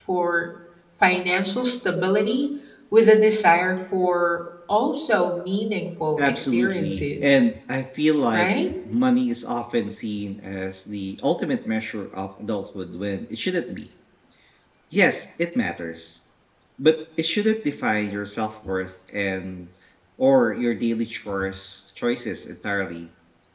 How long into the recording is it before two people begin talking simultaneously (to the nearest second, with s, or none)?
6 s